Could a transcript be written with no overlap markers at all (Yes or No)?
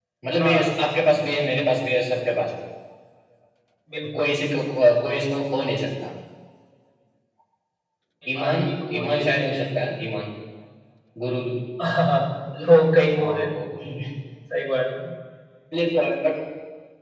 No